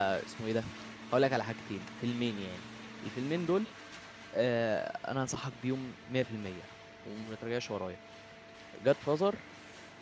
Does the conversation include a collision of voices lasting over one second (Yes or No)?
No